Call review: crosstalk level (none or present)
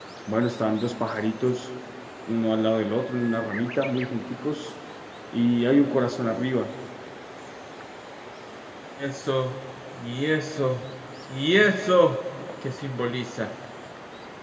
none